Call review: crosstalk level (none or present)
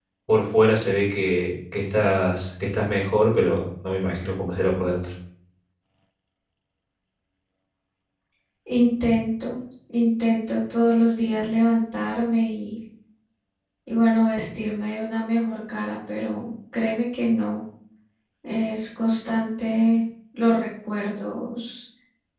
none